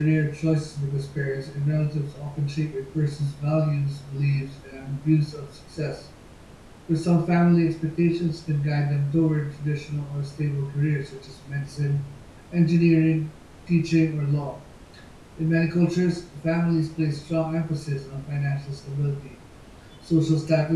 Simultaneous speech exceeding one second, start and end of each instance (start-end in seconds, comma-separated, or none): none